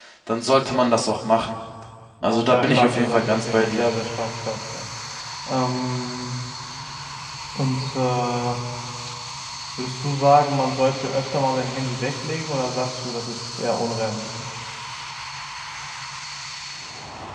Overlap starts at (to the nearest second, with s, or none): 2 s